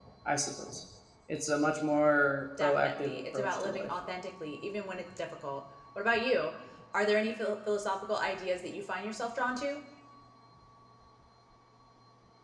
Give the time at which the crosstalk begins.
2.6 s

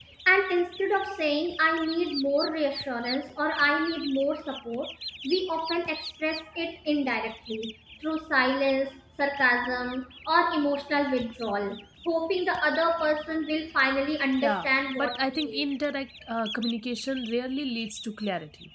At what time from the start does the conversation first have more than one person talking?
14.4 s

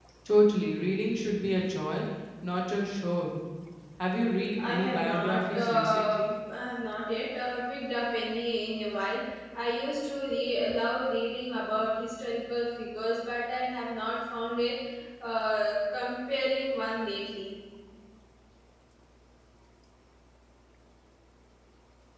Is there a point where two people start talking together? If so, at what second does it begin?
4.7 s

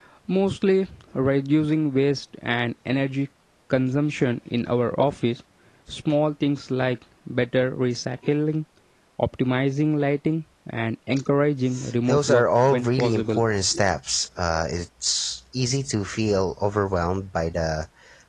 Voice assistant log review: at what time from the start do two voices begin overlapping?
12.1 s

